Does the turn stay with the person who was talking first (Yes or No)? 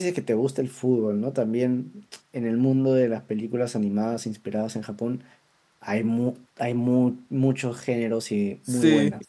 No